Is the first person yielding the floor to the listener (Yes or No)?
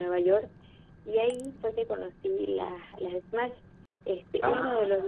No